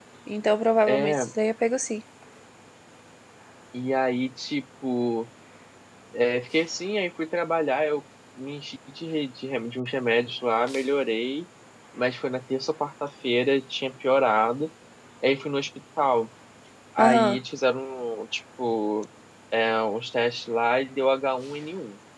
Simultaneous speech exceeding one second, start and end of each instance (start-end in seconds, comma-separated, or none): none